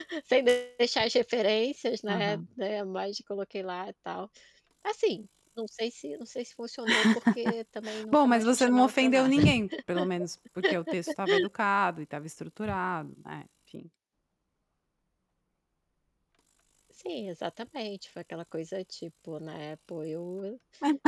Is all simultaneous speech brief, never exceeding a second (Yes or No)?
No